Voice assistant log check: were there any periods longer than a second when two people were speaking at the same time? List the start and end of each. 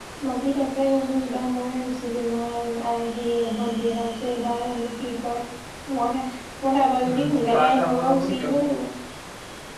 7.1-8.6

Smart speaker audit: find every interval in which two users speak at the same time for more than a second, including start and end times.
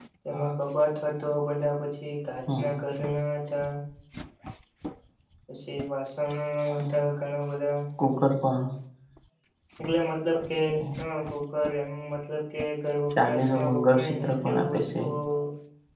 13.2-14.9

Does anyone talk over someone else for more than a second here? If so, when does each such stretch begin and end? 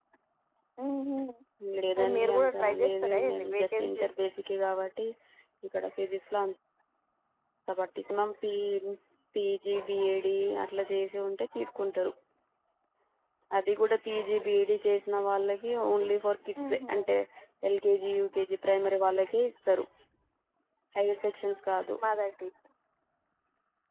2.0-4.2

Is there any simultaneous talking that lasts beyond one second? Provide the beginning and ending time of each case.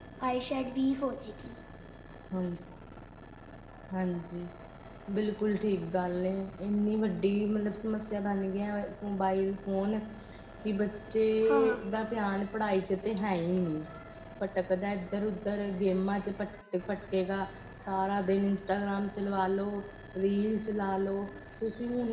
none

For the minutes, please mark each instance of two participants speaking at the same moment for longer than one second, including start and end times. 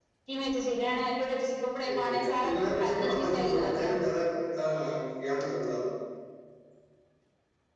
1.8-3.9

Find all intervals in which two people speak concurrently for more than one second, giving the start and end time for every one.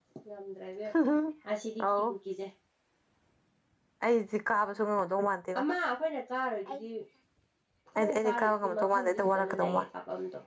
8.0-9.8

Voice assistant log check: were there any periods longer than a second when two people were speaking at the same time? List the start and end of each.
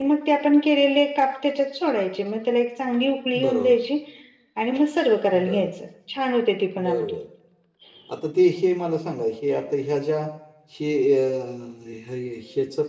none

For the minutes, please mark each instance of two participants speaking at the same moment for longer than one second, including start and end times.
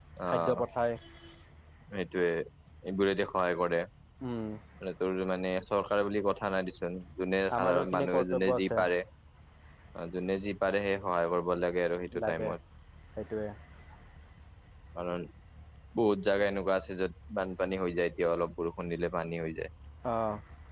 7.6-8.8

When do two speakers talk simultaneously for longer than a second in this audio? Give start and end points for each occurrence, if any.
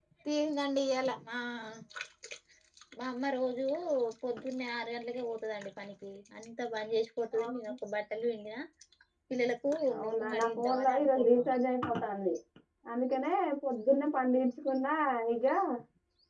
10.0-11.6

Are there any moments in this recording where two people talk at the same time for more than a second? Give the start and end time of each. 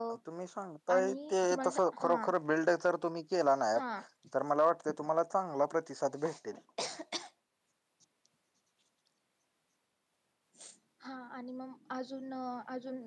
0.9-2.1

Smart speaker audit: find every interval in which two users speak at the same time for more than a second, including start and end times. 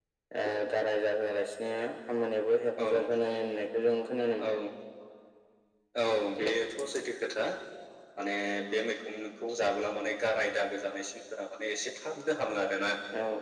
none

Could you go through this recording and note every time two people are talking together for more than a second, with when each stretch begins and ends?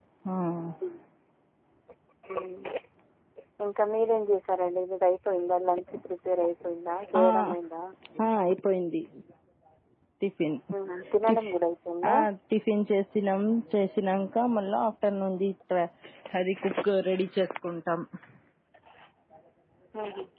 none

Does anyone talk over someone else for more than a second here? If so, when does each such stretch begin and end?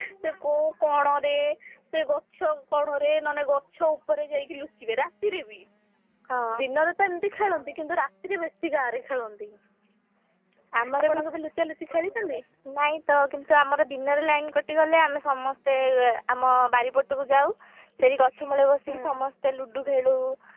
none

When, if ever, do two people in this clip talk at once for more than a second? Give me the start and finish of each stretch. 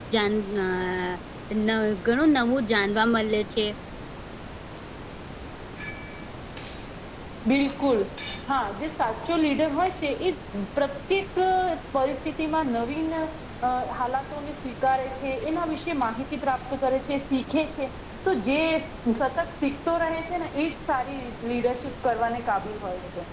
none

